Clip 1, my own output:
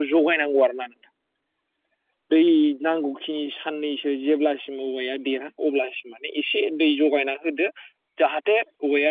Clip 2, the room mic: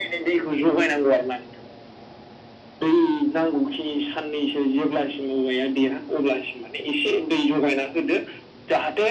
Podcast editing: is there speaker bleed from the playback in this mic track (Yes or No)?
Yes